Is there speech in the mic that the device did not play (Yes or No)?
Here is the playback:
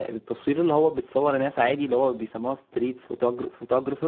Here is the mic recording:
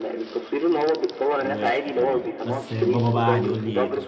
Yes